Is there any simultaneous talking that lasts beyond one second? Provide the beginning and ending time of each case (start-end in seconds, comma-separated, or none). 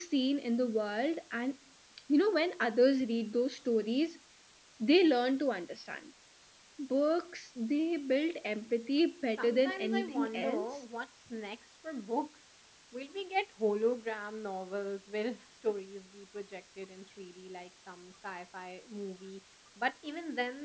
9.4-10.8